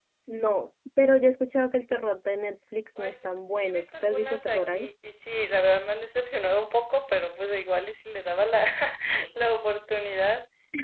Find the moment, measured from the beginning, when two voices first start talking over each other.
3.0 s

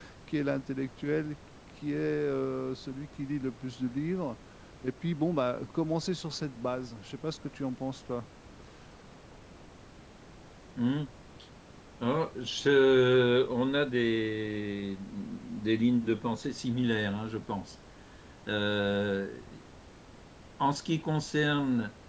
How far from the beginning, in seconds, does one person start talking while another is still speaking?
none

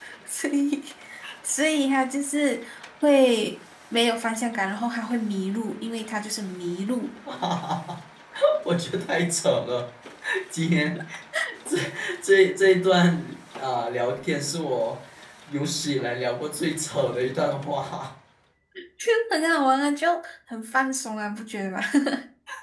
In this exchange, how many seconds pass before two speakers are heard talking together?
none

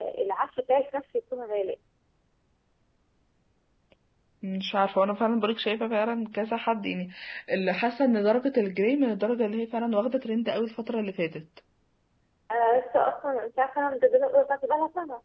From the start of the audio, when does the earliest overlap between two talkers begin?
none

